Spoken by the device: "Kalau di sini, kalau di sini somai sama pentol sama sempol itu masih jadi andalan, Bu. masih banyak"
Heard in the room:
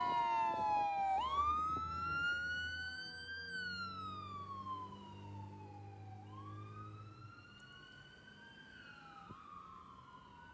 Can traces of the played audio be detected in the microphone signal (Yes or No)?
No